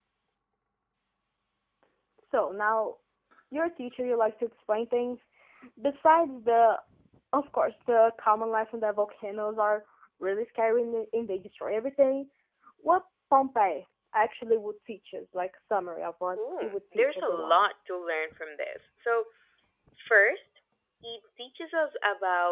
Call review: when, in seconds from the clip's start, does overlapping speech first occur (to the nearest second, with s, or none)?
16 s